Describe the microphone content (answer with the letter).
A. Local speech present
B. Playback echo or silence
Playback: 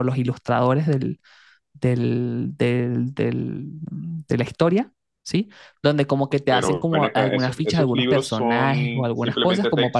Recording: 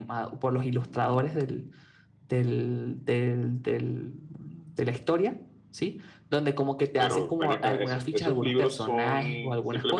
B